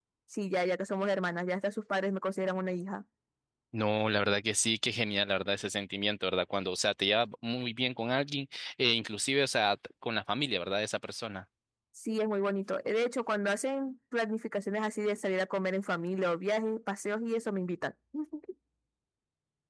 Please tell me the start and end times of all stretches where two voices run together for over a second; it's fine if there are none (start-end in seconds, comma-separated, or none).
none